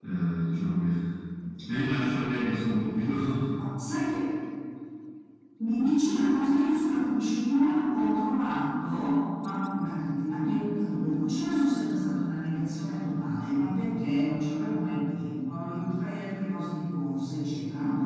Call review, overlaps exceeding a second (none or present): none